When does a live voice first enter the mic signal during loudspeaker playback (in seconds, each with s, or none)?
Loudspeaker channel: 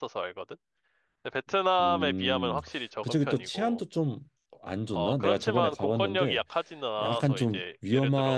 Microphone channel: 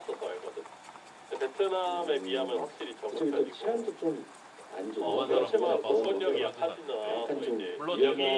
5.0 s